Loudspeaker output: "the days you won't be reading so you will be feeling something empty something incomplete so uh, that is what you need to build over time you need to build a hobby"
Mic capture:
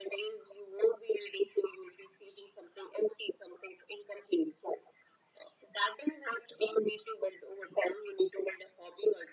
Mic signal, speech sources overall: echo only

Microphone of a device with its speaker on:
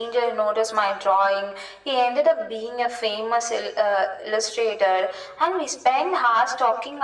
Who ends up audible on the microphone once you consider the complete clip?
echo only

